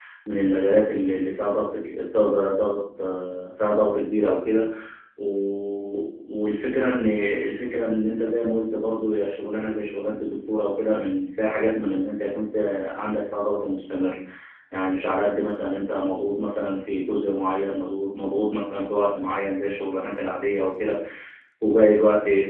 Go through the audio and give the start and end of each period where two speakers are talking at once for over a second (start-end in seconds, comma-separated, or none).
none